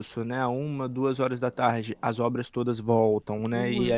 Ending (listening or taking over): listening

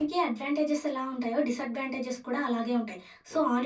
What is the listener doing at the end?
listening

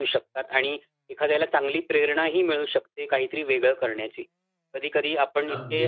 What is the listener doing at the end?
listening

